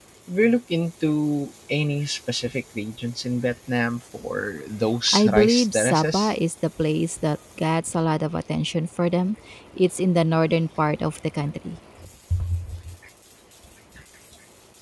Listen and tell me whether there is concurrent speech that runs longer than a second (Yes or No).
Yes